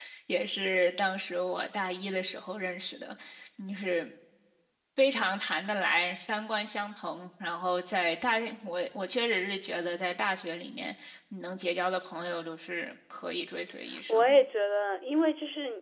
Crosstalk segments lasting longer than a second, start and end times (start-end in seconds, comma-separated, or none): none